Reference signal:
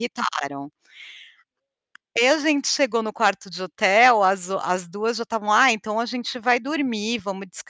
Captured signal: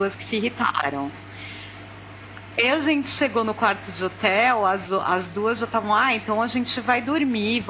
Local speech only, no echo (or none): none